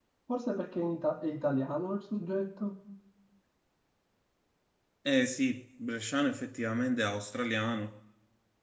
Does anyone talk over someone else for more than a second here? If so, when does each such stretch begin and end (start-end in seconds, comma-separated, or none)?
none